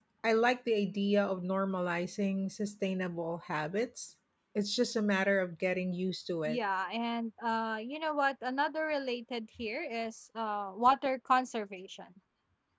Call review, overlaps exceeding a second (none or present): none